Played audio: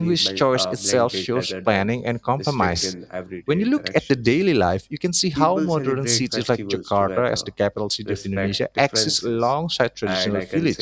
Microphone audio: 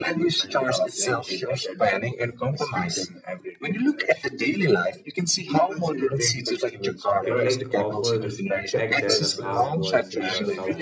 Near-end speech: present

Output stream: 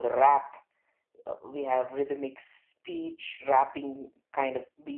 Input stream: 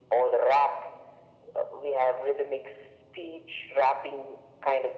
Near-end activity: none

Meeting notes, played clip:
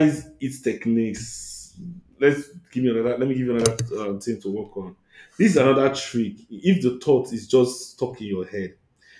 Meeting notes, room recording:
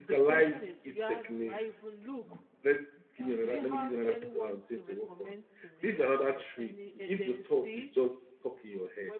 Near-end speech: present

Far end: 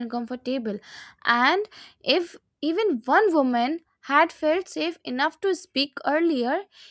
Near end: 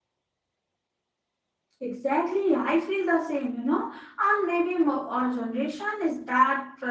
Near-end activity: present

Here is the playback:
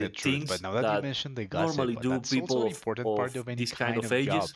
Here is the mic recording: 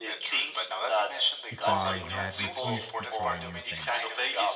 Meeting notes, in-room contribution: present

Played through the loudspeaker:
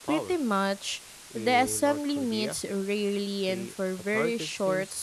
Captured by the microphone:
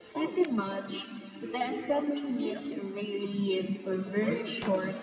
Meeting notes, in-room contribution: none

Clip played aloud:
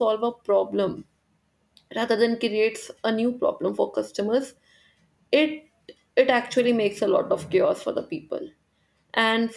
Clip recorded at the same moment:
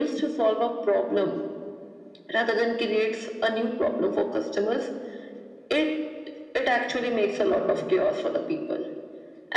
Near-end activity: none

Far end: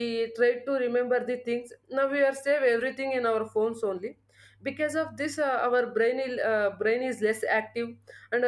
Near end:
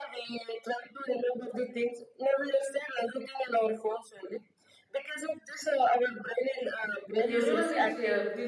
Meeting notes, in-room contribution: present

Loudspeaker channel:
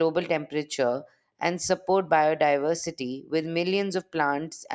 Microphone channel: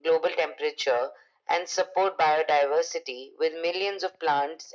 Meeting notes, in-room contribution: none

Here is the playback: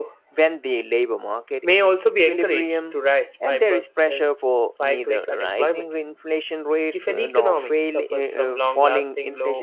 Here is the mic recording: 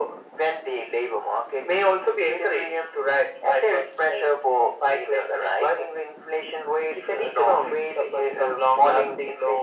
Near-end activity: none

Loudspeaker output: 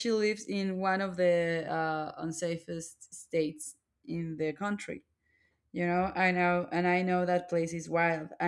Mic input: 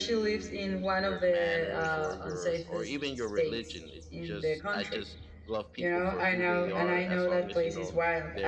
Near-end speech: present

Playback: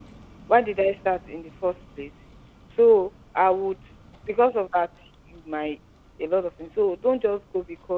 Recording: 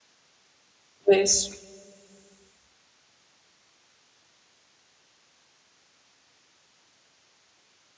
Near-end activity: present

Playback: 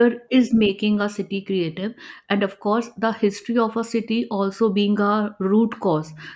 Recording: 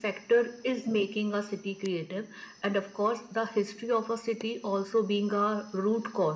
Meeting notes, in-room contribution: none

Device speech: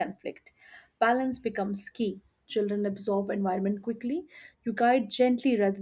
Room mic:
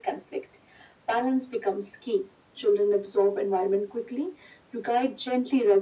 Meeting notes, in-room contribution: none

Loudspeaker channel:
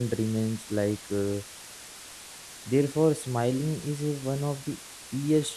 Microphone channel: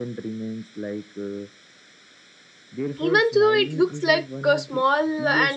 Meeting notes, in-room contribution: present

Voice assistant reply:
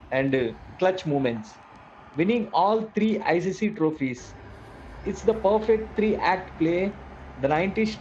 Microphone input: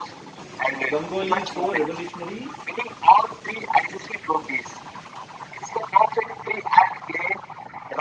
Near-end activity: present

